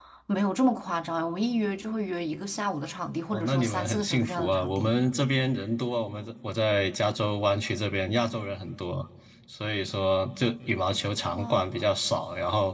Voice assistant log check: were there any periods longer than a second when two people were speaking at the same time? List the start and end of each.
3.3-4.9

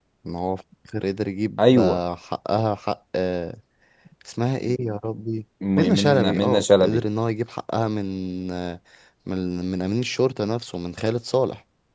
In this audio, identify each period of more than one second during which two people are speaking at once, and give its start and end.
5.8-7.0

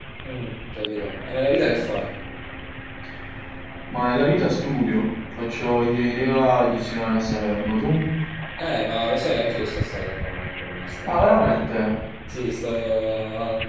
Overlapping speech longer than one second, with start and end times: none

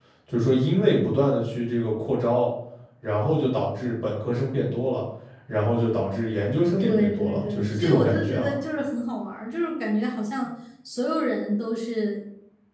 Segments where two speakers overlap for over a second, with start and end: 6.8-8.5

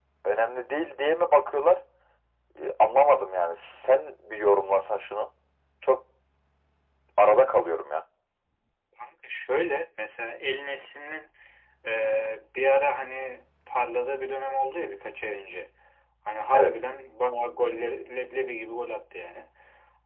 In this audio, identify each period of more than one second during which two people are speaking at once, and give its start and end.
none

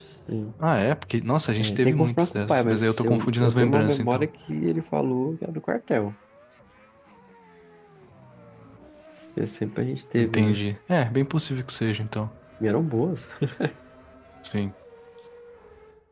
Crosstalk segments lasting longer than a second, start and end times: 1.6-4.3

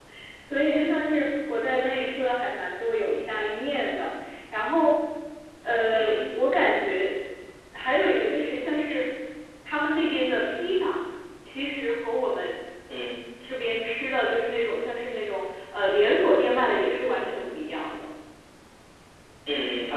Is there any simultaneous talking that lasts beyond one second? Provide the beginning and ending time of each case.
none

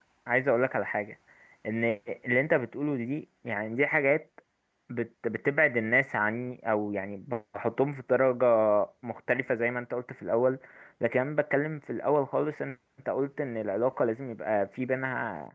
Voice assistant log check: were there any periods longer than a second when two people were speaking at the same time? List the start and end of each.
none

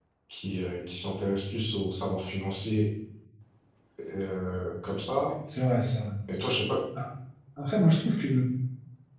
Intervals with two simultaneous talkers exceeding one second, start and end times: none

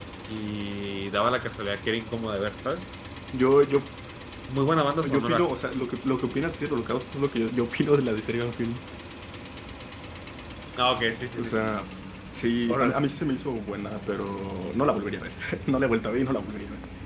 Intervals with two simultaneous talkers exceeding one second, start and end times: none

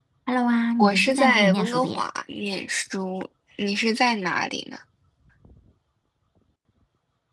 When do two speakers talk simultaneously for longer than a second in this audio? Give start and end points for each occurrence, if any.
0.8-2.0

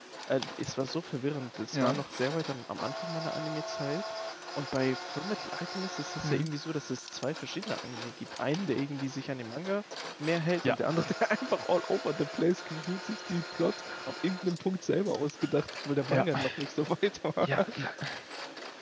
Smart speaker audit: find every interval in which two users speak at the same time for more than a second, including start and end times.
none

